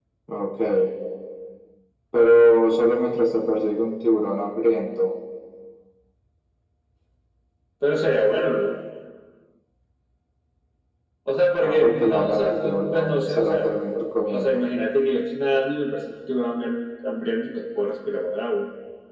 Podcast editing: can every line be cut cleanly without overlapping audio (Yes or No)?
No